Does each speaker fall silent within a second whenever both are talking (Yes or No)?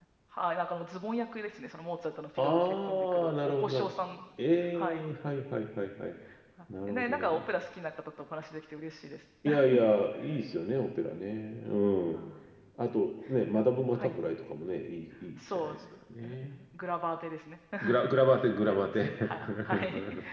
No